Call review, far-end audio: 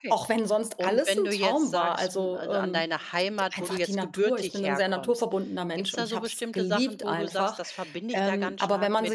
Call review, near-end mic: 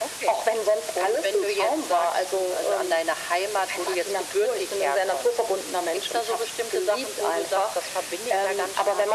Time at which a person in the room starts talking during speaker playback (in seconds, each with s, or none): none